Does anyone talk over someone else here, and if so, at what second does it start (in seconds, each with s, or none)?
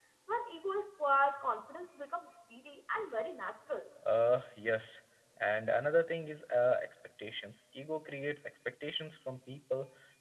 none